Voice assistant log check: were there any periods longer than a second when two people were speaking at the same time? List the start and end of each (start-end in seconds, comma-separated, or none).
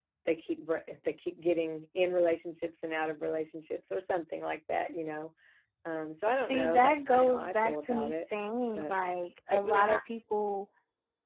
6.4-8.2